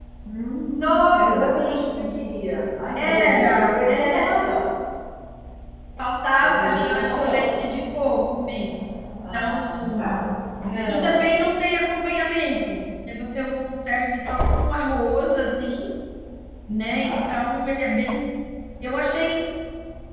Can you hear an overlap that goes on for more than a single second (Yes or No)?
Yes